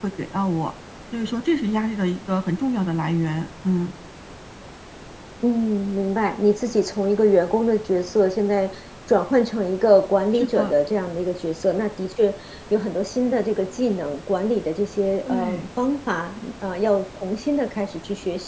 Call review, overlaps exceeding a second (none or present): none